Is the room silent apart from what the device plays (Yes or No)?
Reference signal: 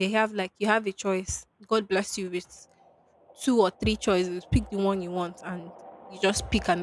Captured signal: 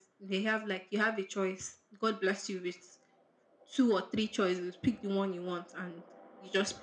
Yes